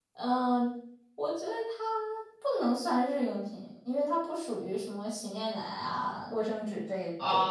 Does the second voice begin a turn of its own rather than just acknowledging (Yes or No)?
Yes